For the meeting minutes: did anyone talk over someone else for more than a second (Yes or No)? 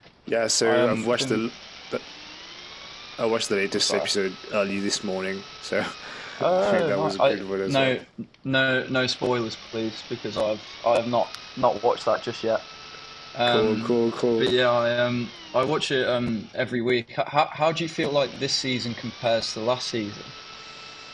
Yes